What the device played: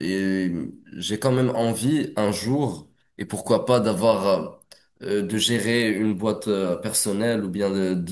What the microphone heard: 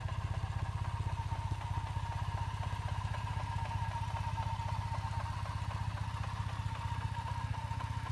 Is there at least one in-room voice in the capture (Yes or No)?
No